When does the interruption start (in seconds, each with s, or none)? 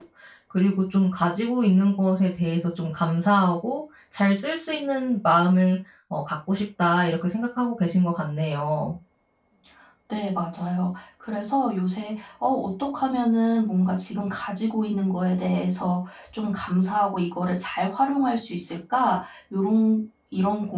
none